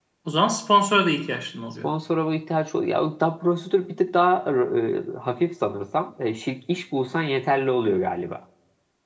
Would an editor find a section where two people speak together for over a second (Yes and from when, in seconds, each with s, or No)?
No